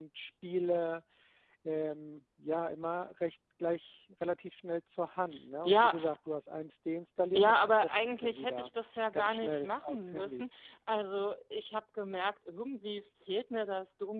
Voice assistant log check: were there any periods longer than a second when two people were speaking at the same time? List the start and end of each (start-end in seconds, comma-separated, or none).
7.3-8.7, 9.1-10.4